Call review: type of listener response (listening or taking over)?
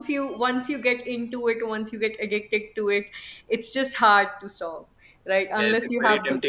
taking over